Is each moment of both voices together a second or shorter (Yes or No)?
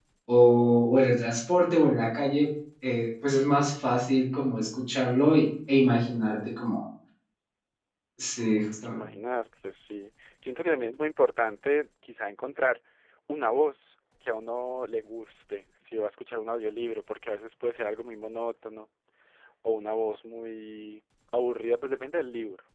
Yes